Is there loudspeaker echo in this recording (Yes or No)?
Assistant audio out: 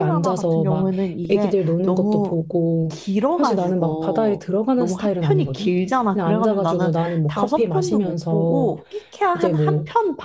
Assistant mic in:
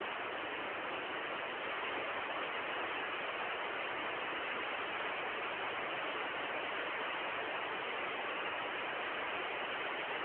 No